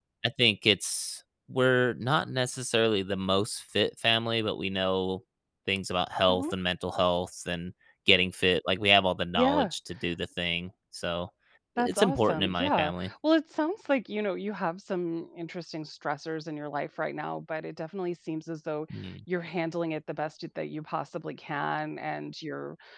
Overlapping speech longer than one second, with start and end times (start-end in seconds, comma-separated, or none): 11.8-13.1